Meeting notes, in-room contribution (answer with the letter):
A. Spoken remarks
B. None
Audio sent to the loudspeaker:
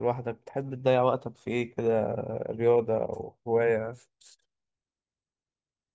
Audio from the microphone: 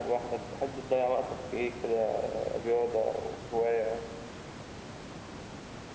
B